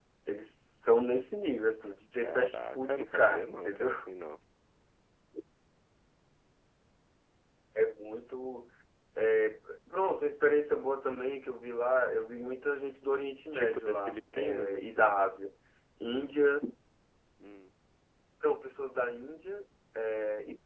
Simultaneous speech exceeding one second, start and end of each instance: 2.2-3.9, 13.5-15.2

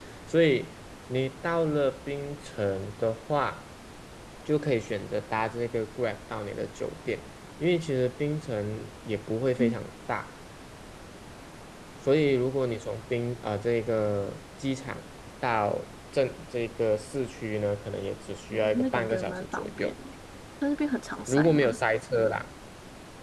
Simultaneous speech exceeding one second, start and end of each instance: 18.5-19.9

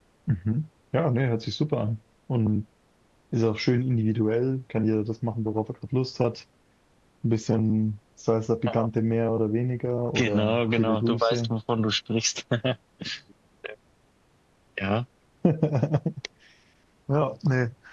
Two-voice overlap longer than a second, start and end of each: 10.2-11.5

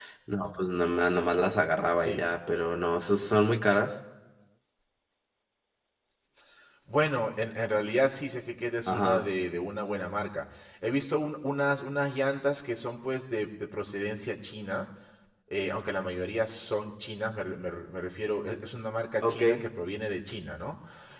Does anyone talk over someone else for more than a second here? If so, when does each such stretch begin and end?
none

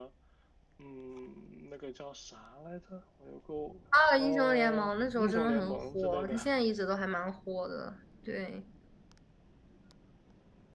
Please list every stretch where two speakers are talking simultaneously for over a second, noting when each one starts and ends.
4.2-6.4

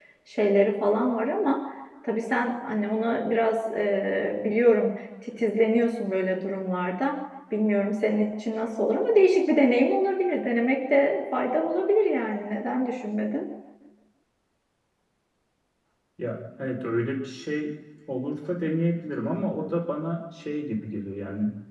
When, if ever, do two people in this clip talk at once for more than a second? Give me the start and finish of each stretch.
none

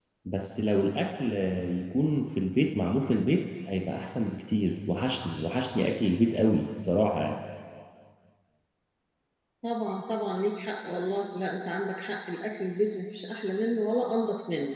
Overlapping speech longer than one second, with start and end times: none

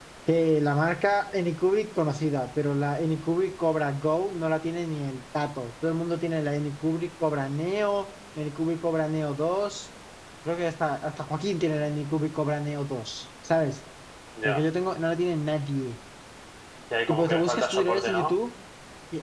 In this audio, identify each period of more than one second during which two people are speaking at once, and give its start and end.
17.1-18.3

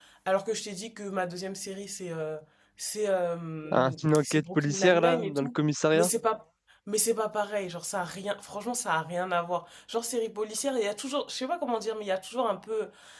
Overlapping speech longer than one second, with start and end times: 3.7-5.5

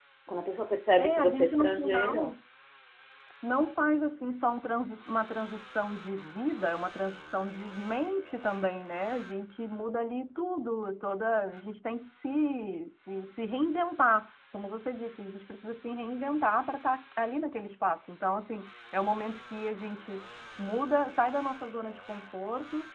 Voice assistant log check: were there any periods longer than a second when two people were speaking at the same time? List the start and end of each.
1.0-2.3

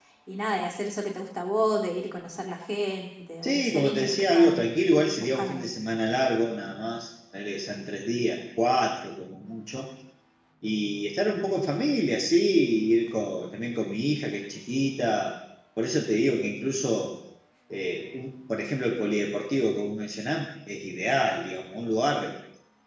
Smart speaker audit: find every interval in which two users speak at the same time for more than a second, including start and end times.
3.4-4.7

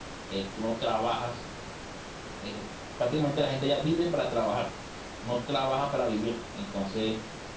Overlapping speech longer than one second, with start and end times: none

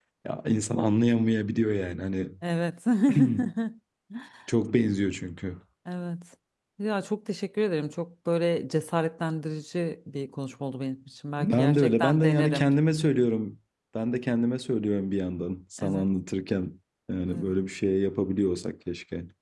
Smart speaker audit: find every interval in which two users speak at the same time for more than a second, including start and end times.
11.4-12.7

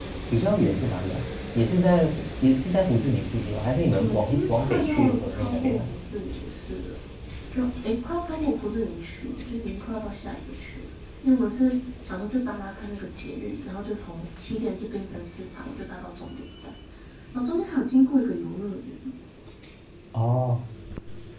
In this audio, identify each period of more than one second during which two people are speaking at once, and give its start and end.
4.0-5.9

